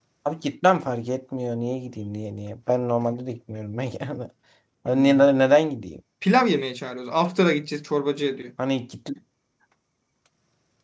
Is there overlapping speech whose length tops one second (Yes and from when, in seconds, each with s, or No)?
No